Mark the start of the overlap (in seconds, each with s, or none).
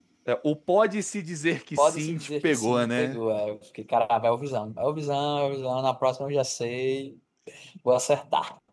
1.8 s